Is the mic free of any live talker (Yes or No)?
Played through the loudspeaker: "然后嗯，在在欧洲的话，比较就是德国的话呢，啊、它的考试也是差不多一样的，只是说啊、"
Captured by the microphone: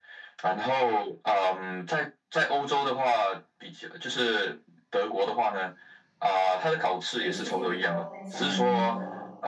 No